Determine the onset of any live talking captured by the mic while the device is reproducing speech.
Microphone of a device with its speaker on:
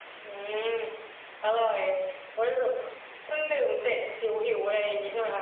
none

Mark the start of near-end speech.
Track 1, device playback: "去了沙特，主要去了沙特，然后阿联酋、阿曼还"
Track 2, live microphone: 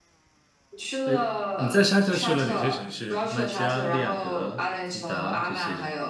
1.0 s

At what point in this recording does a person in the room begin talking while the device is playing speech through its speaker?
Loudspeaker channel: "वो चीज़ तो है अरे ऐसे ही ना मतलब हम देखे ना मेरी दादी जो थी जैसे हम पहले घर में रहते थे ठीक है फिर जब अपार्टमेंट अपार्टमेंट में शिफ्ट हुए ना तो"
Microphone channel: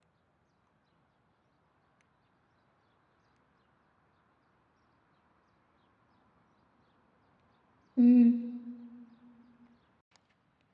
8.0 s

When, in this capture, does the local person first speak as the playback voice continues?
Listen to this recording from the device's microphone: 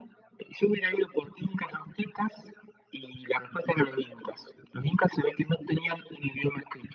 none

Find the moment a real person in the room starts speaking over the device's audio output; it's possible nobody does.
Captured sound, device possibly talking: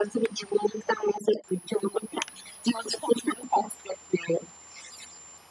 none

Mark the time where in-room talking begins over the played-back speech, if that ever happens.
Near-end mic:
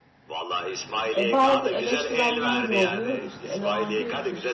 1.2 s

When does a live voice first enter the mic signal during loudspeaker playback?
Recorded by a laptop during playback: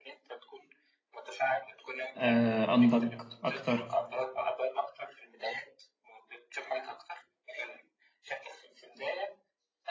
2.1 s

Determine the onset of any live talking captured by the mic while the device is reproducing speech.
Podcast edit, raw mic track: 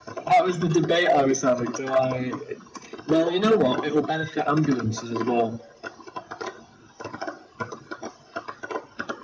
none

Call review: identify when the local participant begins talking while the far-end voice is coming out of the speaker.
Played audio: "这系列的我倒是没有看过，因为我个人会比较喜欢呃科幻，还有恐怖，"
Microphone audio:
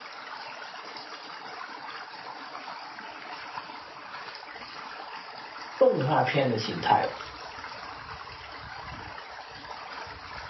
5.8 s

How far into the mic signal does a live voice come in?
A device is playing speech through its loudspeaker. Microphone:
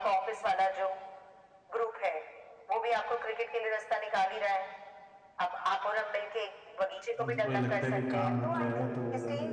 7.2 s

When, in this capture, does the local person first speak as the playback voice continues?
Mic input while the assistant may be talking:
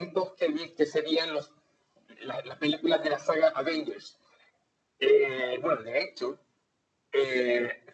none

